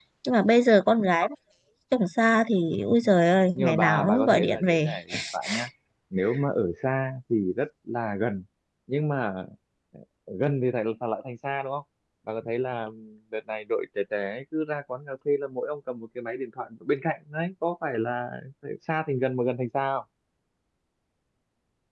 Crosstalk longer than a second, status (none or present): present